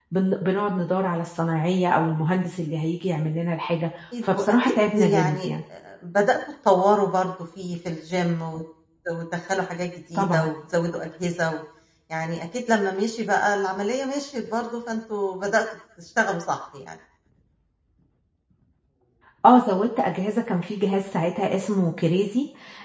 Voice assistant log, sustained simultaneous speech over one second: present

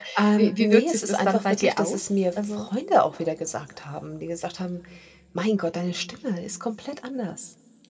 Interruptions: present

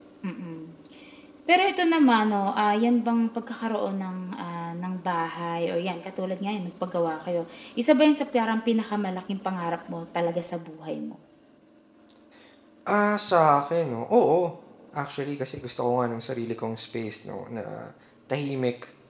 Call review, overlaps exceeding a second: none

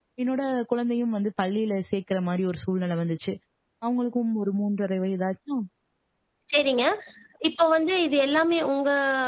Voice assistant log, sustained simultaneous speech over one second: none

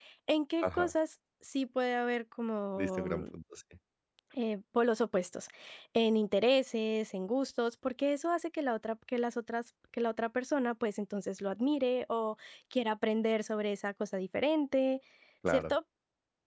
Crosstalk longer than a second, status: none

